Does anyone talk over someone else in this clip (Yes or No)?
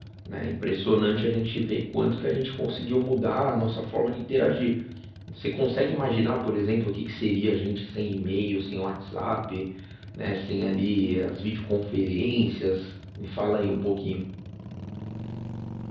No